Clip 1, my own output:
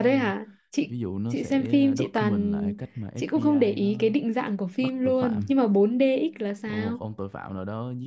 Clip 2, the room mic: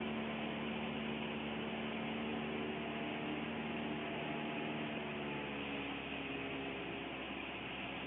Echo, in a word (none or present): none